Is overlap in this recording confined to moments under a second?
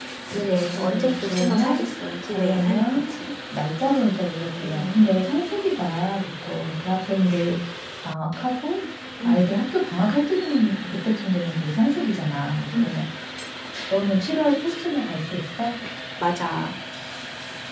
No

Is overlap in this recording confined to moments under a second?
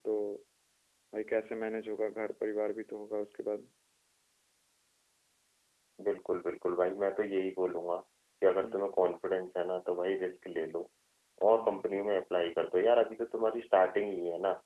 Yes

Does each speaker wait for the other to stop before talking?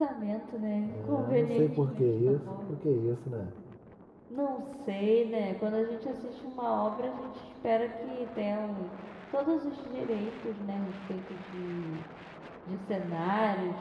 No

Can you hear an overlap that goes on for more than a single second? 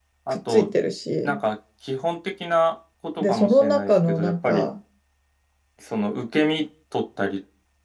Yes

